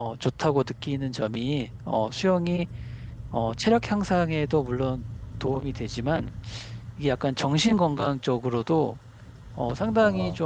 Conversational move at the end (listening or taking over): listening